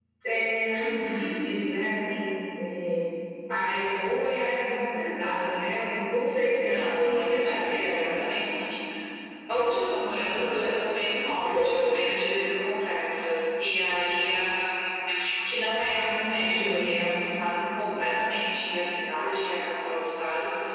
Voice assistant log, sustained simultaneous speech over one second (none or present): present